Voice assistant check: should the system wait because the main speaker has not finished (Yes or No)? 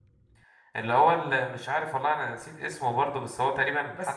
No